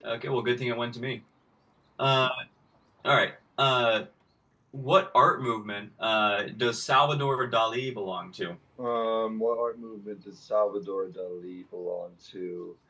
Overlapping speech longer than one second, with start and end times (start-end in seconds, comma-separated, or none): none